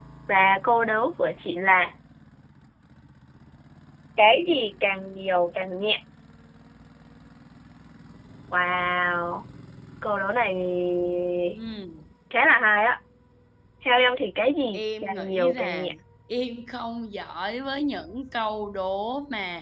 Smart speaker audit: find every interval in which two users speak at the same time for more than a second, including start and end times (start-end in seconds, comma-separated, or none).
14.7-15.9